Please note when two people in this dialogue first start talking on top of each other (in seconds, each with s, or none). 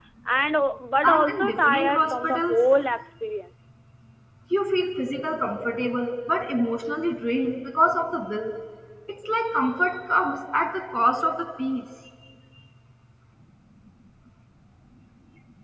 1.0 s